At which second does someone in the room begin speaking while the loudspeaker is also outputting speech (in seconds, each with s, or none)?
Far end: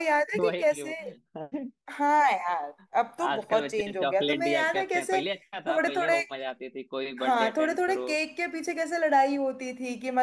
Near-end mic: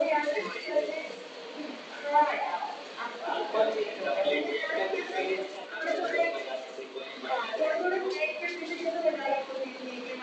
none